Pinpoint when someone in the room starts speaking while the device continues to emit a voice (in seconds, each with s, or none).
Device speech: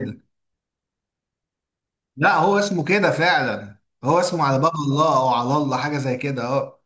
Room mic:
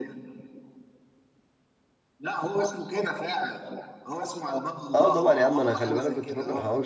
5.0 s